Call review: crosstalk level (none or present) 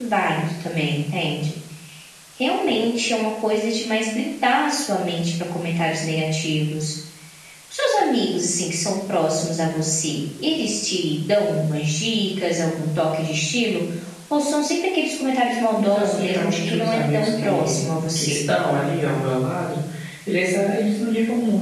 present